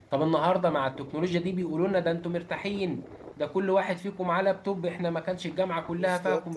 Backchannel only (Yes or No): Yes